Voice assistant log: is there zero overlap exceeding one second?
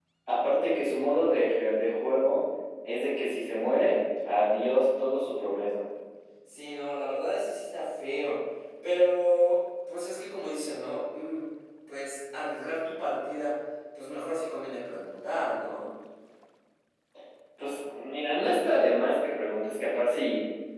Yes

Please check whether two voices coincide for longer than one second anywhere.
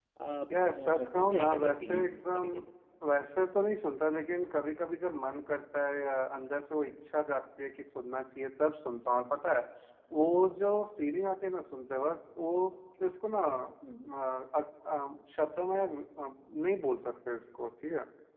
Yes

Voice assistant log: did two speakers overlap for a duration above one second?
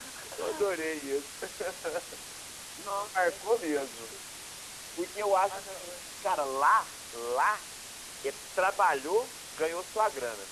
Yes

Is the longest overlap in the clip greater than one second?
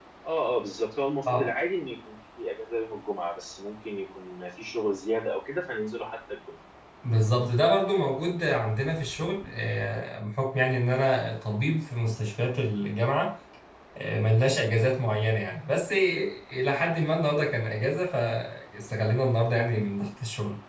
No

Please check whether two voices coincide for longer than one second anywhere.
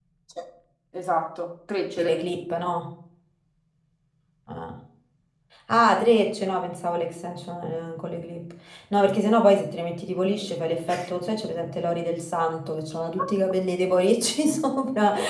No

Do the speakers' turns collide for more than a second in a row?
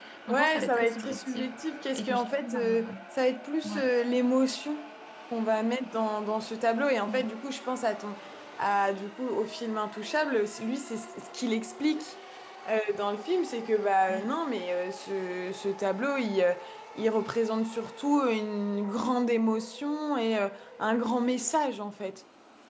Yes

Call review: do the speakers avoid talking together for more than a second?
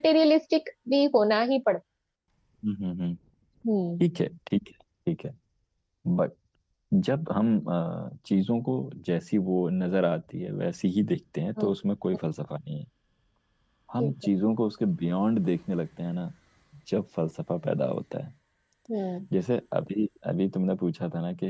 Yes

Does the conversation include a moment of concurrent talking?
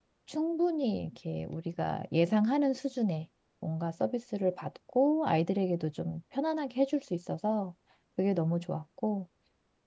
No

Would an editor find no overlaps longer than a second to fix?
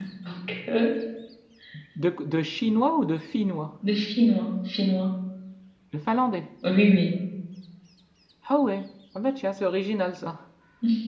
Yes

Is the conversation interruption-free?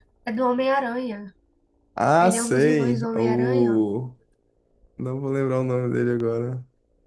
No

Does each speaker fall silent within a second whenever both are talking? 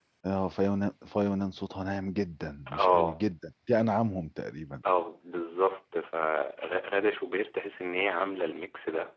Yes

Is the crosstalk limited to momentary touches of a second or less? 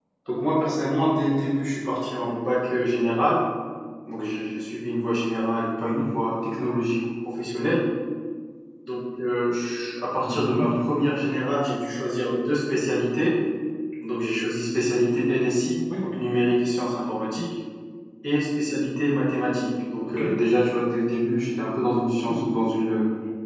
Yes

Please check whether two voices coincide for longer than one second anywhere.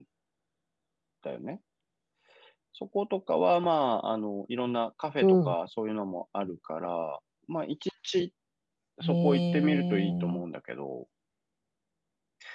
Yes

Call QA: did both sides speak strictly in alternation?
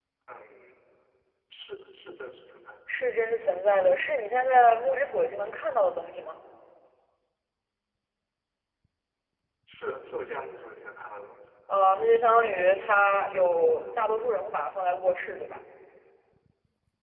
Yes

